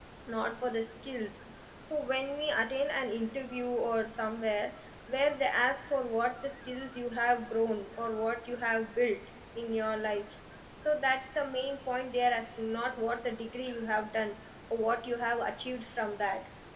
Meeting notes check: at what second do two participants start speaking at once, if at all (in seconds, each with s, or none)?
none